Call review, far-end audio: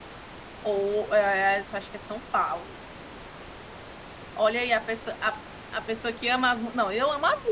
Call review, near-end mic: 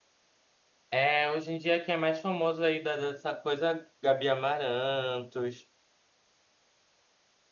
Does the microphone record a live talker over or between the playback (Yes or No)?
Yes